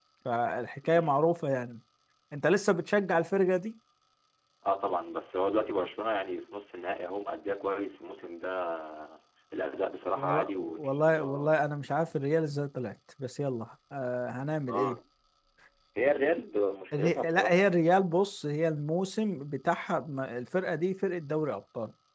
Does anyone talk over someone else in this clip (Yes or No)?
Yes